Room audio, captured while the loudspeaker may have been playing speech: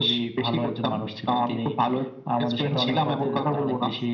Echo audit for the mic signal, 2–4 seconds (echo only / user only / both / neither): both